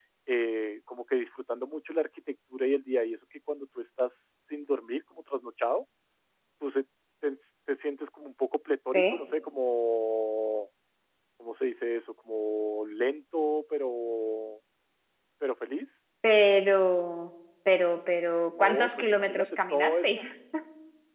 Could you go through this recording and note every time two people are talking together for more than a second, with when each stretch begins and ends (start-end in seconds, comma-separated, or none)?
18.6-20.2